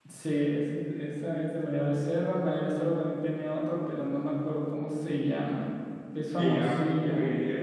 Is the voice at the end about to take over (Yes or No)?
Yes